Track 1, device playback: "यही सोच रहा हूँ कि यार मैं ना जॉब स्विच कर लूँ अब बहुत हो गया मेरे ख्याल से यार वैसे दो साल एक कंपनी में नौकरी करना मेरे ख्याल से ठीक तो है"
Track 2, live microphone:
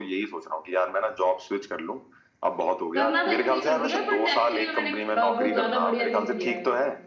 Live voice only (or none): करना था इसलिए कर दिया बट एक्चुअली मैंने अ, वो ज्यादा बढ़िया नहीं किया है